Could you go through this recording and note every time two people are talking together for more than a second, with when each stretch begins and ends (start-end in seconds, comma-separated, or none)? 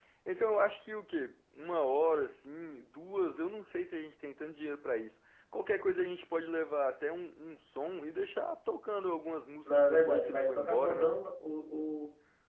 9.6-11.1